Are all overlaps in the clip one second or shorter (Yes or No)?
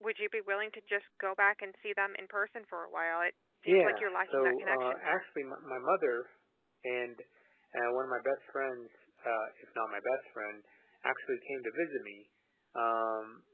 No